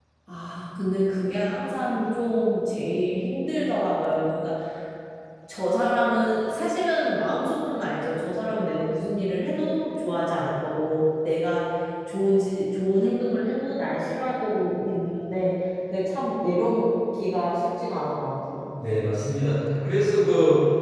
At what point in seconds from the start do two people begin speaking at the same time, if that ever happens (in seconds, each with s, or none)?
none